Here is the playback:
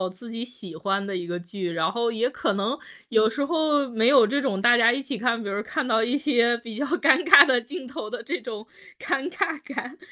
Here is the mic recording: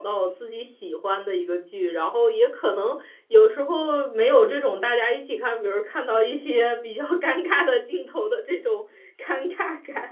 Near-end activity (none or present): none